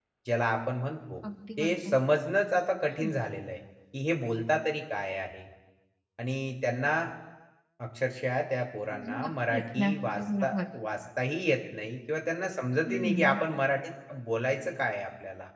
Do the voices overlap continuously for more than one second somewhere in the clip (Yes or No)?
Yes